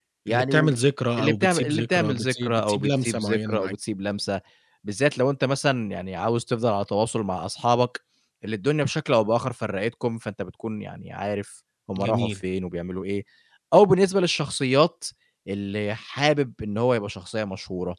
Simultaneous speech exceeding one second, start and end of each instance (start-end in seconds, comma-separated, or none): 1.2-3.7